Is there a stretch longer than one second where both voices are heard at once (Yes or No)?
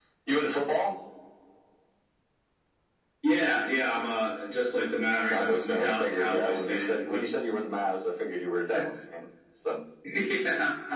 Yes